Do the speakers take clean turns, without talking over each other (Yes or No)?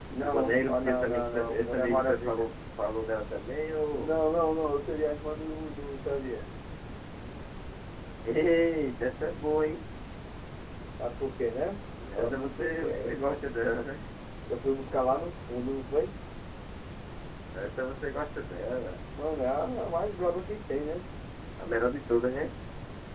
No